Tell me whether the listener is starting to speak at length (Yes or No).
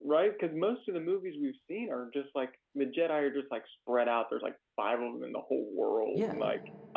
Yes